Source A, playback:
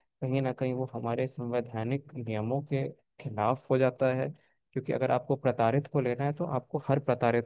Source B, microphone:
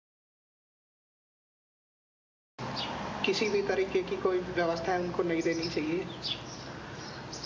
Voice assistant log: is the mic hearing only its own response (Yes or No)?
No